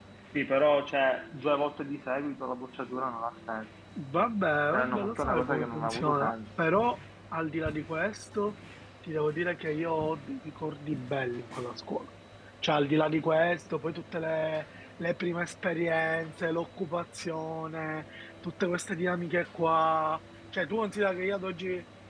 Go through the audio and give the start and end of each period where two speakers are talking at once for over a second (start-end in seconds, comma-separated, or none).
4.7-6.3